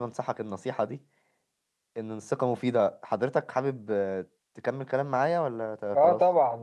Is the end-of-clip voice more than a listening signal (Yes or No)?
Yes